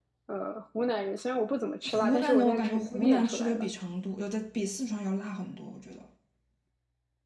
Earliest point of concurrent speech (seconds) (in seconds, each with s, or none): 1.9 s